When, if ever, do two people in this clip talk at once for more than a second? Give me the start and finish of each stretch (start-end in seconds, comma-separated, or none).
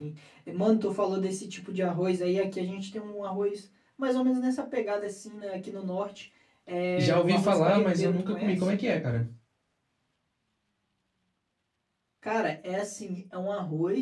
7.0-8.7